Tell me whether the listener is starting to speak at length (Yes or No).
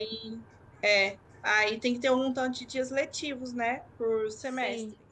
No